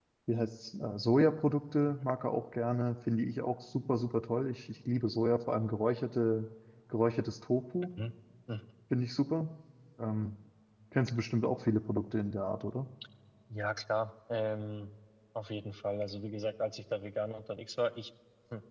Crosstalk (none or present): none